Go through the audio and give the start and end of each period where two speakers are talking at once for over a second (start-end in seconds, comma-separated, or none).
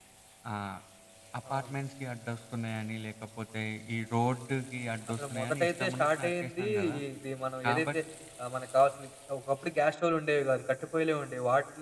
5.1-7.0